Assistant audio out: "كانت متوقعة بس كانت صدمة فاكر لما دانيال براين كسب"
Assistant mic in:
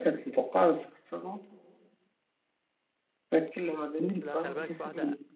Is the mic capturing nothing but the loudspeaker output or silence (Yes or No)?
No